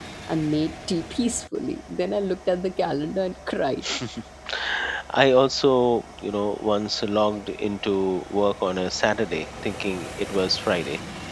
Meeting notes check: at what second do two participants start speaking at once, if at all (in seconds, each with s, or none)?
none